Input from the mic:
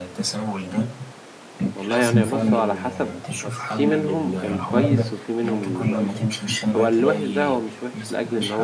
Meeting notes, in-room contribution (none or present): present